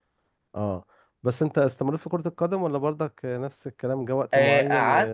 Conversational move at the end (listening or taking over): taking over